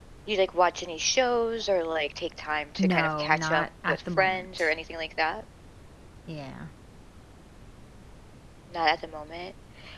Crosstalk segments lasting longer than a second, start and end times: 2.8-4.7

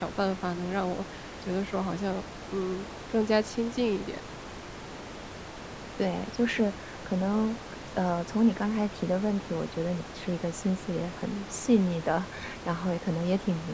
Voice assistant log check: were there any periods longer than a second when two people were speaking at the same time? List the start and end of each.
none

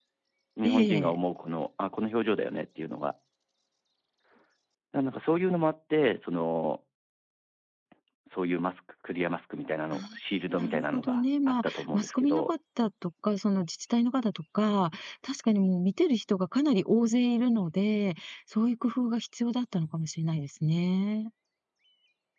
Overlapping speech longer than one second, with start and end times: 10.5-12.5

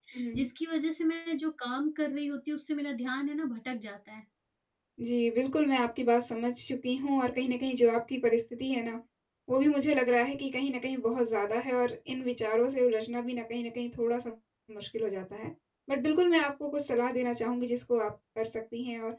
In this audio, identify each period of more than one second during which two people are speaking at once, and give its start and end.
none

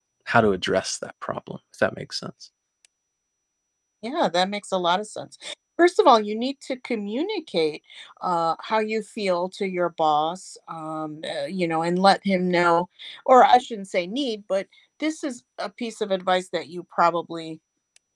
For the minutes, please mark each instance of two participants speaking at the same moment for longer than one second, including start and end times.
none

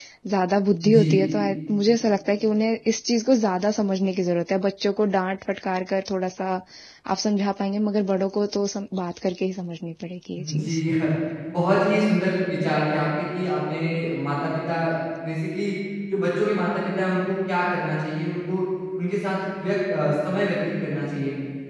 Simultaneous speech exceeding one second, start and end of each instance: none

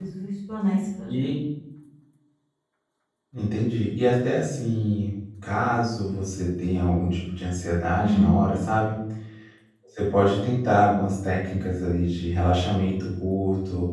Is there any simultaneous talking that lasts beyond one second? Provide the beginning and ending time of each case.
none

